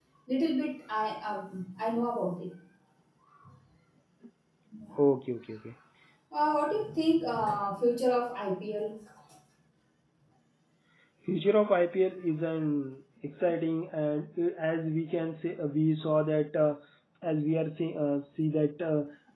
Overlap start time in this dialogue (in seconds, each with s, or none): none